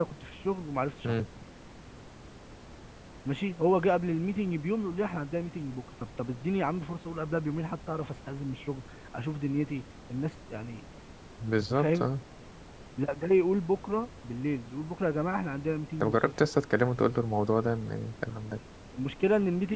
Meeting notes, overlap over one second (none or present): none